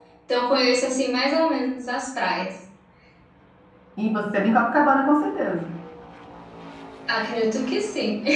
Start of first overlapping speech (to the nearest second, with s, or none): none